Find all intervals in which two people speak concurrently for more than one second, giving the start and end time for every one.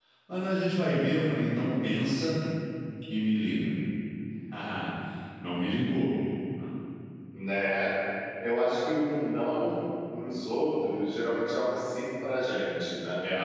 none

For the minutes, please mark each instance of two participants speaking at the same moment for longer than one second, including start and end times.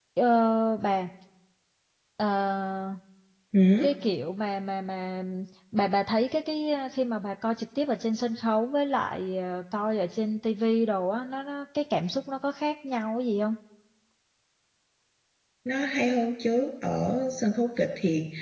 none

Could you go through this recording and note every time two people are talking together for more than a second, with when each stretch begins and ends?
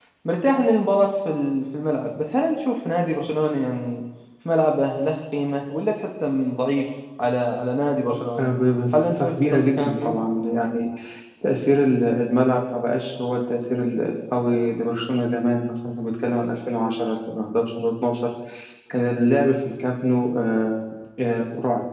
8.9-10.2

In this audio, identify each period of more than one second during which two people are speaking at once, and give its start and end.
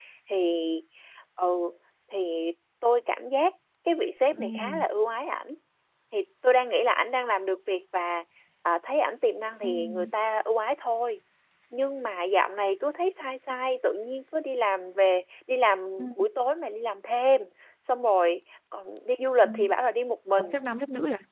none

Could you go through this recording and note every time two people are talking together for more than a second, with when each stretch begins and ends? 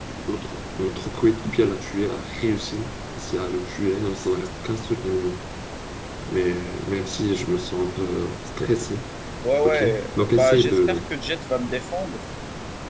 9.6-11.0

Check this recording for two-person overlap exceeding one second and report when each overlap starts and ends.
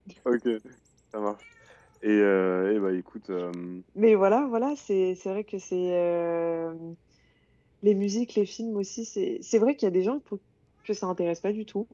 none

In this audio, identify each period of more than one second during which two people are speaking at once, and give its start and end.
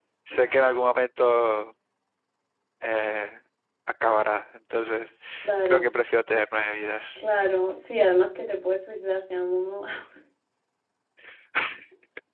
none

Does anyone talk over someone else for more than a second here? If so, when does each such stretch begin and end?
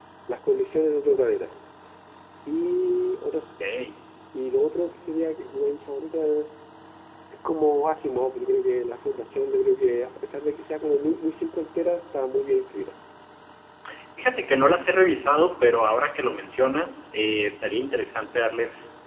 none

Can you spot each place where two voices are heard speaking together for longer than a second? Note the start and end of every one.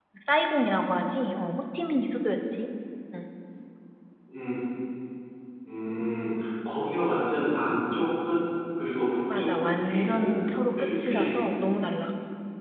9.4-11.4

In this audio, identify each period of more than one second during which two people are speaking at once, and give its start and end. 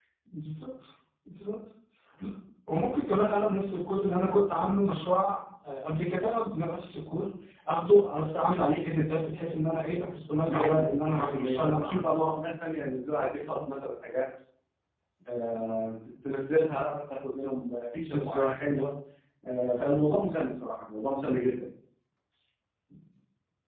10.5-12.2

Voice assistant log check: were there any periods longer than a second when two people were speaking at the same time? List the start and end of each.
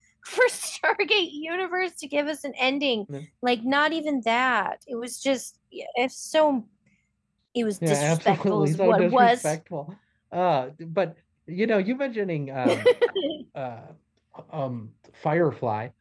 7.9-9.6

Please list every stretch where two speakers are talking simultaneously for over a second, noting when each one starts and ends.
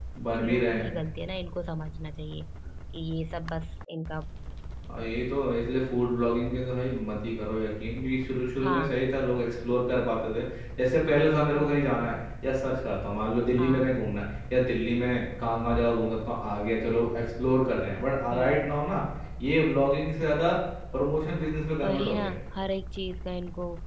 none

